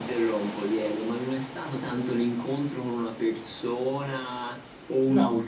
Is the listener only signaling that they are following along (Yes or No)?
Yes